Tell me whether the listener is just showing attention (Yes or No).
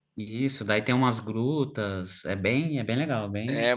No